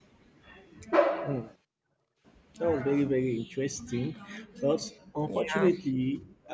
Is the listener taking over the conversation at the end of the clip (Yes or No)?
No